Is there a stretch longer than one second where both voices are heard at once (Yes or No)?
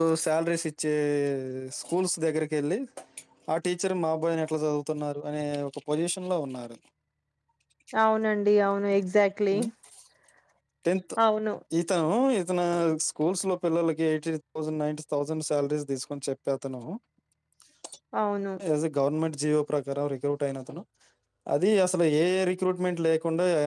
No